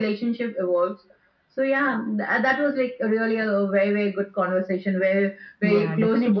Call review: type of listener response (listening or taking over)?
taking over